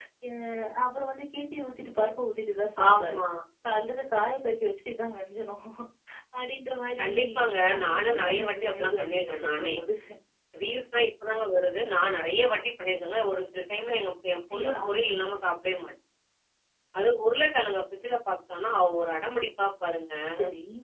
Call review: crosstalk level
present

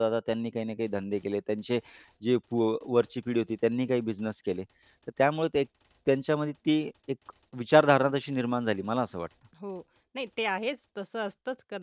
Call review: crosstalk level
none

